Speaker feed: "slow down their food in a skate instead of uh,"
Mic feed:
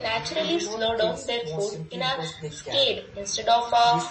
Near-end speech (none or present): present